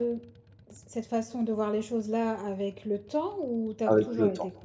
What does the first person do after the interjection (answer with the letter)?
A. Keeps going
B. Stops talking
B